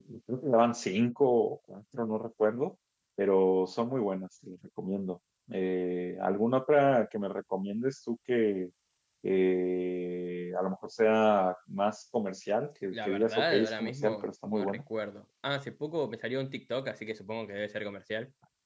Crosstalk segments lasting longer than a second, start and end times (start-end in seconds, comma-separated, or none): 12.9-14.8